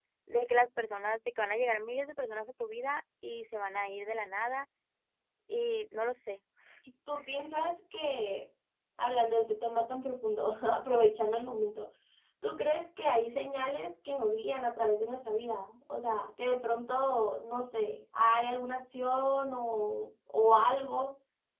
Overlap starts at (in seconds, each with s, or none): none